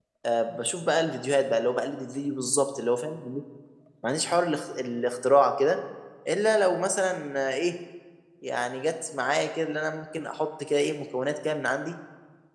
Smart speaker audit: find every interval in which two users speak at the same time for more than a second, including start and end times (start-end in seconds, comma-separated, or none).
none